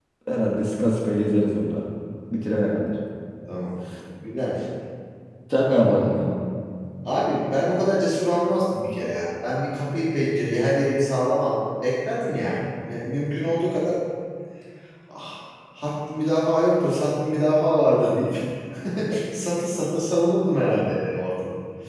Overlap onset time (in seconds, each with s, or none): none